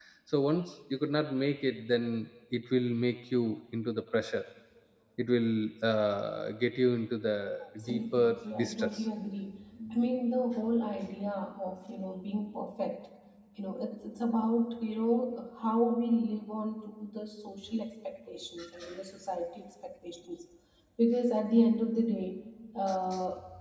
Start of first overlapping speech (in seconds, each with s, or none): 7.8 s